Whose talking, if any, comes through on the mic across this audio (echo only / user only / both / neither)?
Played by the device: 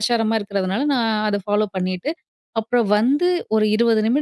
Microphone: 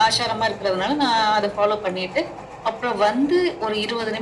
echo only